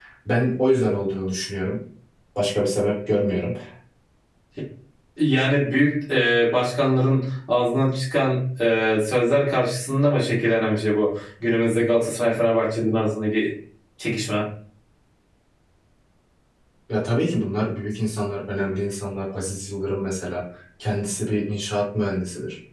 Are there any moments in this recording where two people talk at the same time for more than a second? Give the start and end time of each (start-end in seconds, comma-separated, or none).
none